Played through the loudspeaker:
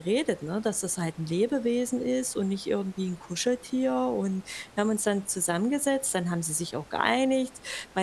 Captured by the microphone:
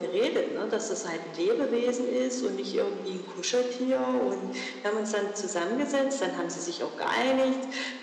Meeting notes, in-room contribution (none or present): none